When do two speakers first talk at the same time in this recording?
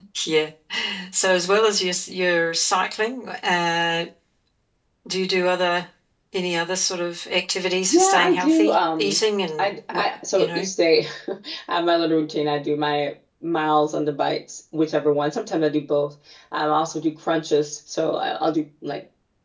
7.9 s

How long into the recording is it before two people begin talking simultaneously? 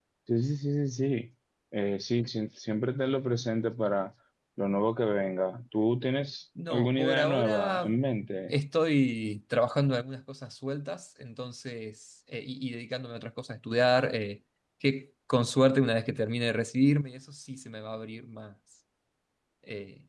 6.6 s

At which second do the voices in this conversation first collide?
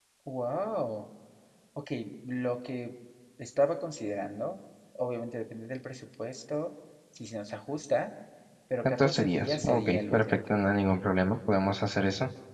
8.8 s

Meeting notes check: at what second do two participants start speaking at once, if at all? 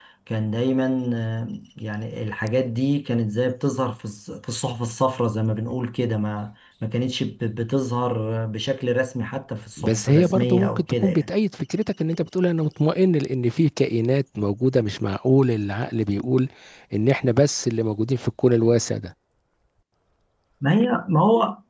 9.8 s

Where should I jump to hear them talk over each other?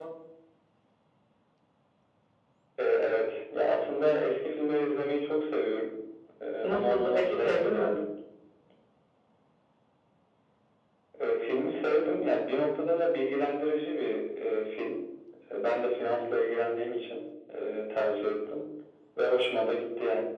6.6 s

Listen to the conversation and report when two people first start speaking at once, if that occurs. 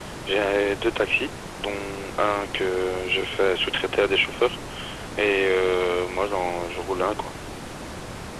none

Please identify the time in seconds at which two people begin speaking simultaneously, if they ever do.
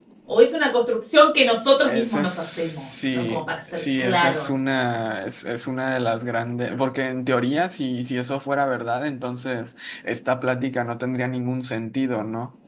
1.9 s

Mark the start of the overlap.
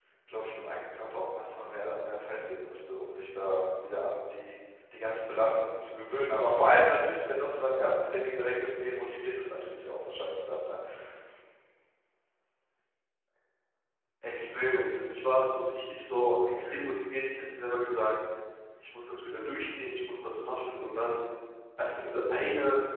none

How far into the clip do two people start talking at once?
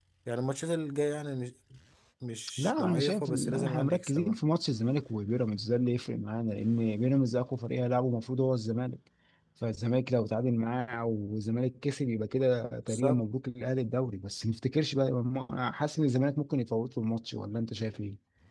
2.6 s

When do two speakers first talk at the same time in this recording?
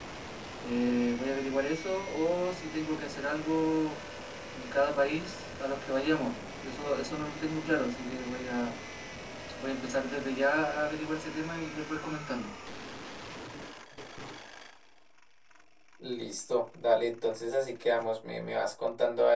none

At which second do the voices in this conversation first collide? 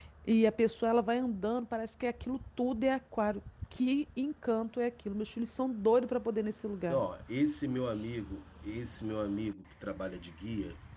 none

